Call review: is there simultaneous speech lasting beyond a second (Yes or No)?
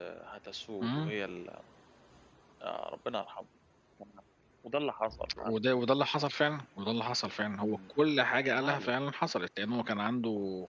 No